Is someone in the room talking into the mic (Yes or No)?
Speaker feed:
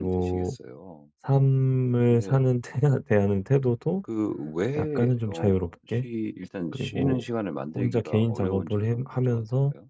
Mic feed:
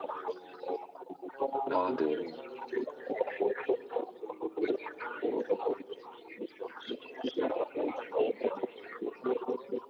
Yes